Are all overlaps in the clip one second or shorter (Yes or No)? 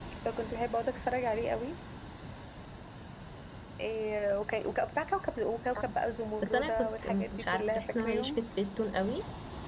No